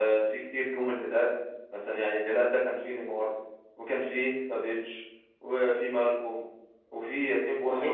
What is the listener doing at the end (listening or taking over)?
listening